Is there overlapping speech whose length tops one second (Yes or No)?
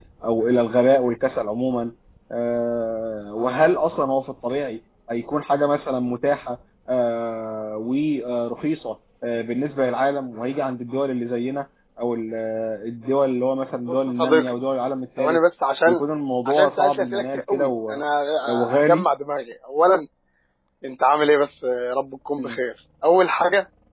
Yes